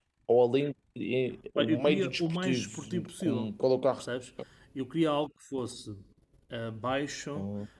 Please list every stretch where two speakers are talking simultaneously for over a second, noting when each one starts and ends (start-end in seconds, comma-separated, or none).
1.6-3.5